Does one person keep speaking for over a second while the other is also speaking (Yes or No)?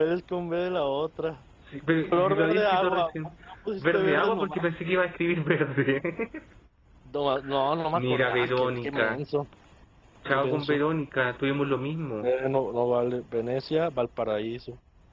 Yes